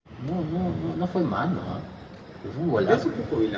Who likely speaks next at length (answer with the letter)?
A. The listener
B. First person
A